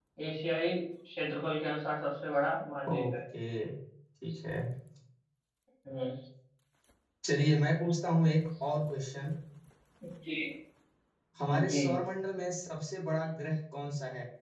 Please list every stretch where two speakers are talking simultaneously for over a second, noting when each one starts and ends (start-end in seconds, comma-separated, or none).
none